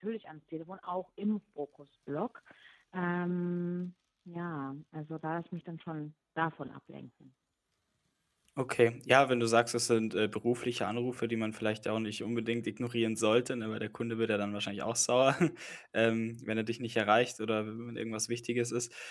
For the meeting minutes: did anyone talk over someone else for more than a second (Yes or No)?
No